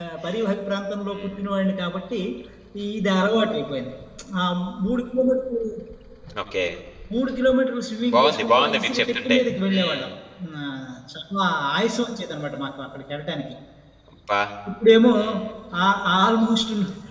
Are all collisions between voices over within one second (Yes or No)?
No